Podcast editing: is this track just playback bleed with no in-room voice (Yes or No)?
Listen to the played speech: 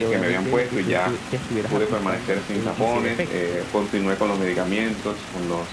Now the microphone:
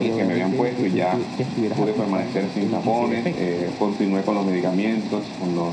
Yes